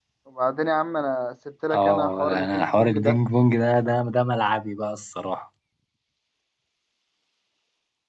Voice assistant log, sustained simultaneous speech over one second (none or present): present